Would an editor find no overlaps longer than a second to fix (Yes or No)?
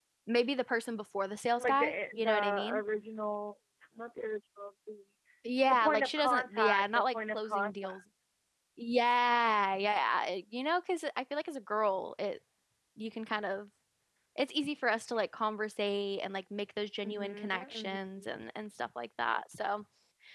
No